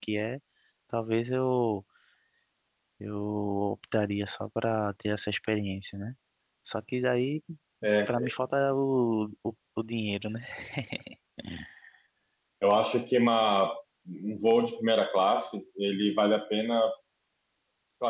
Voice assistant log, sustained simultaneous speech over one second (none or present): none